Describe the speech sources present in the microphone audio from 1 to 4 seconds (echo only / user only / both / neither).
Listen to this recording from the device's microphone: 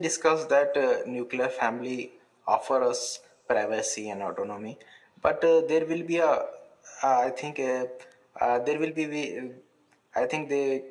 echo only